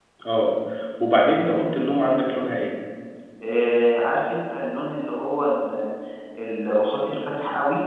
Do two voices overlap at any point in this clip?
No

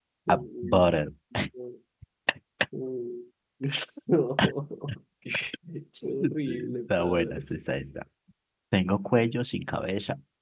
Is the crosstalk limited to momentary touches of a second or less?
No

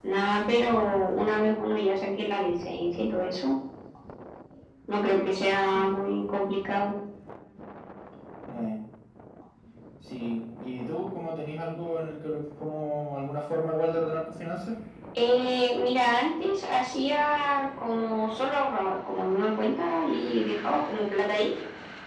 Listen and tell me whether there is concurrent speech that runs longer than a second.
No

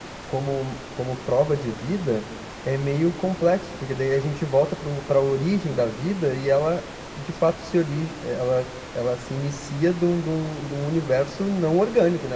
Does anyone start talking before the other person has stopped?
No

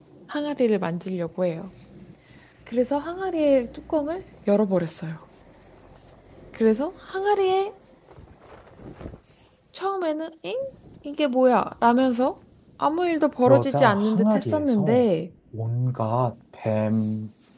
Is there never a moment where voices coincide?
No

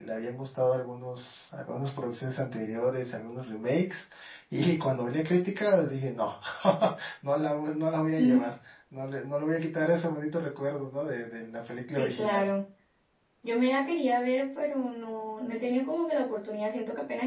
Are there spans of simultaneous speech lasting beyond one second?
No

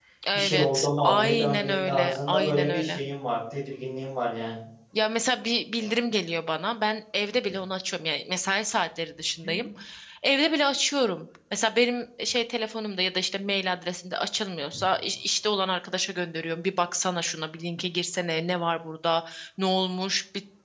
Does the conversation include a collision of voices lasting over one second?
Yes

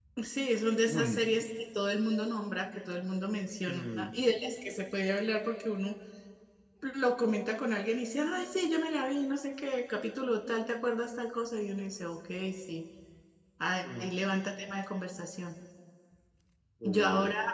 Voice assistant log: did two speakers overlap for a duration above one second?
No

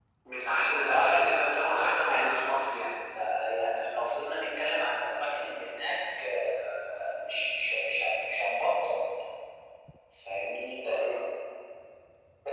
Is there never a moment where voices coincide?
No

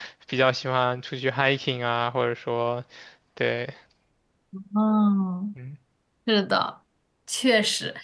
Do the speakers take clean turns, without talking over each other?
Yes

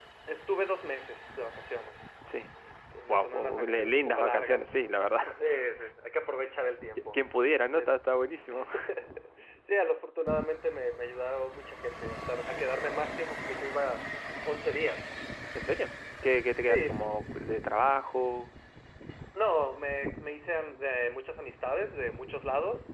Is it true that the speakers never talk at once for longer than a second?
No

